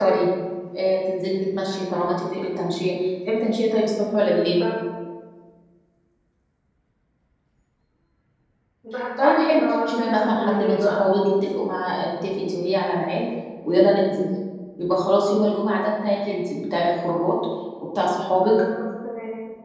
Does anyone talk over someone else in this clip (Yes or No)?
Yes